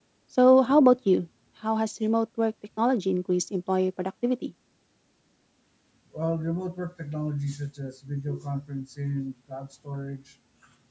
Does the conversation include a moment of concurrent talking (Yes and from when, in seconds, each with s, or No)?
No